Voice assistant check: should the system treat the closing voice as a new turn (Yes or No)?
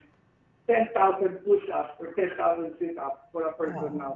No